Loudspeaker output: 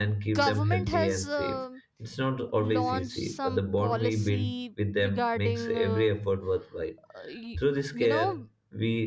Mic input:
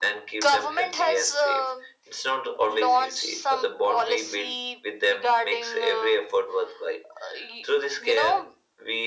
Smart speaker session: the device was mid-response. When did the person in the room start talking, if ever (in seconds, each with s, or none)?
none